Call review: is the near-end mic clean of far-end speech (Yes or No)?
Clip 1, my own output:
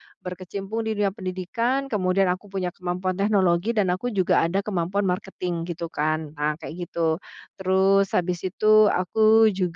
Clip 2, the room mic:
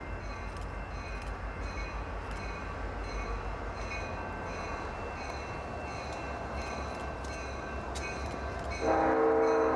Yes